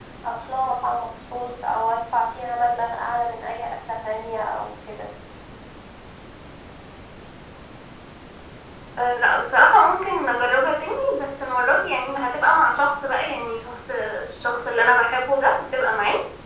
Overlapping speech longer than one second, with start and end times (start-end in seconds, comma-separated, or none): none